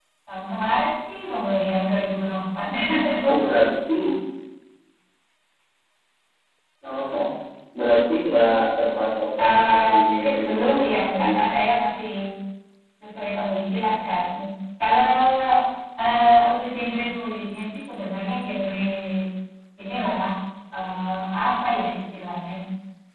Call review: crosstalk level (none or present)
present